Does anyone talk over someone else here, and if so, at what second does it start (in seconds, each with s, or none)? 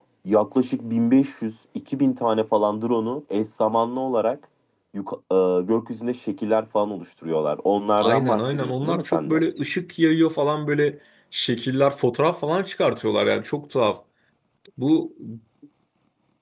8.0 s